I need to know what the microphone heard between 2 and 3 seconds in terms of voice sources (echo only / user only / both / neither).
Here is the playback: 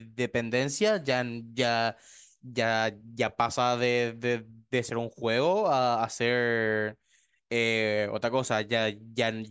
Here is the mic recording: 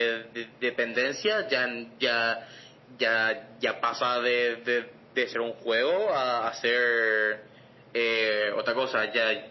echo only